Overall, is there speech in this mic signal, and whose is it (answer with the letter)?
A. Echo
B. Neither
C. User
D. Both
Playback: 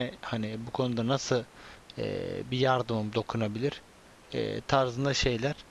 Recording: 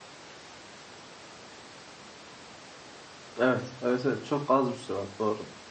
C